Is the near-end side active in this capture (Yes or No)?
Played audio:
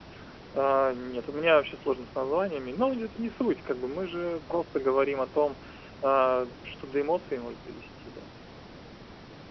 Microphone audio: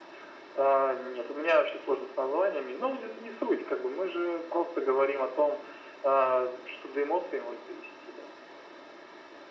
No